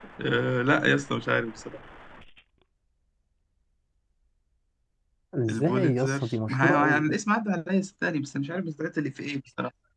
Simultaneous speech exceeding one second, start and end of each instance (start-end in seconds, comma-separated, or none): 5.5-7.0